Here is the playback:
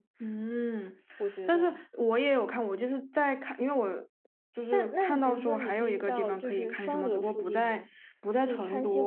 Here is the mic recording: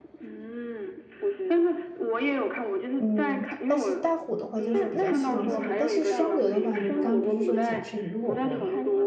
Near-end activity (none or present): present